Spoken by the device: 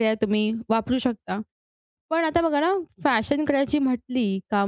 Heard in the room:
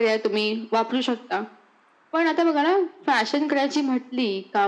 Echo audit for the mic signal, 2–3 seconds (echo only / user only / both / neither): echo only